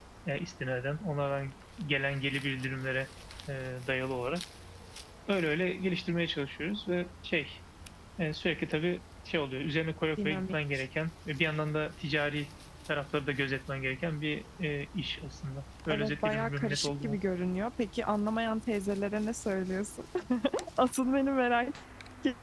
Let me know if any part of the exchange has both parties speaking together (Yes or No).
Yes